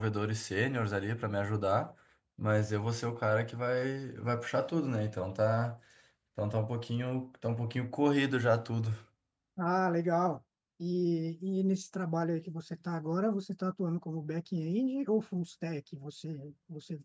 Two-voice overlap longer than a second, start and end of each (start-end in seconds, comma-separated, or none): none